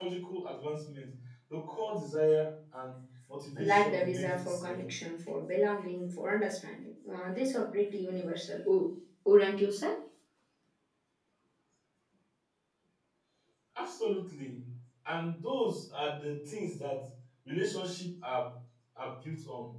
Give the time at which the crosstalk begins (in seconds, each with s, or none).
3.6 s